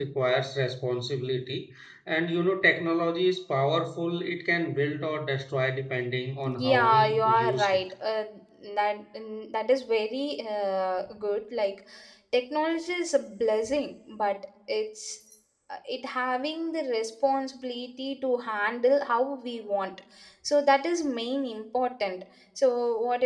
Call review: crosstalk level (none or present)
present